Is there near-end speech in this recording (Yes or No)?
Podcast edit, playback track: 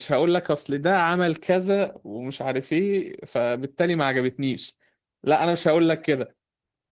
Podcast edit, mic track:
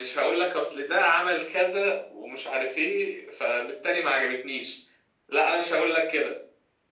No